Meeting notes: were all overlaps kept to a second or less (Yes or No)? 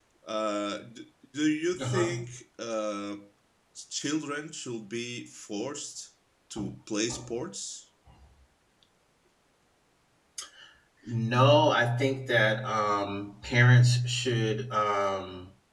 Yes